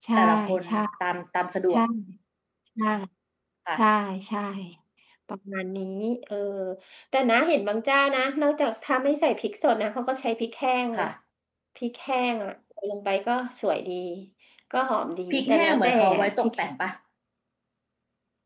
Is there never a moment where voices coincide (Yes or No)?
No